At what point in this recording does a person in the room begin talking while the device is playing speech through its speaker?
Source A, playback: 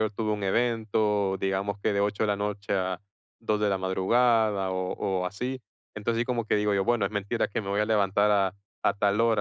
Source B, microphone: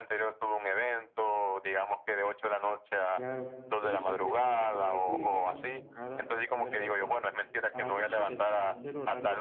3.1 s

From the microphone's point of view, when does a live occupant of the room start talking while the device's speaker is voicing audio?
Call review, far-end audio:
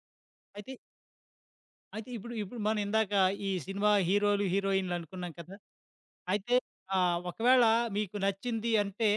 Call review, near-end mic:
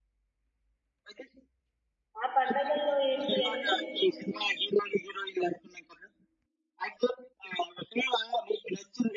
2.2 s

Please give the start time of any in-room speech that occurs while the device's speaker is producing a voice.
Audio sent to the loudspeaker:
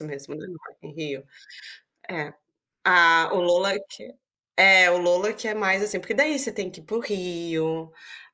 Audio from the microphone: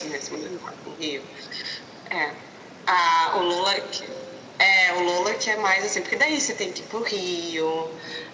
none

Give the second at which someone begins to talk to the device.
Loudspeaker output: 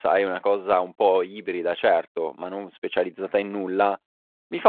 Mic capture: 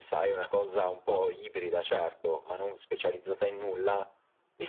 none

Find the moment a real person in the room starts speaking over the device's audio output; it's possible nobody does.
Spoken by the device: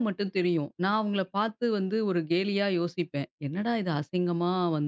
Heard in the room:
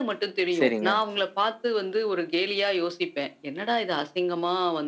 0.6 s

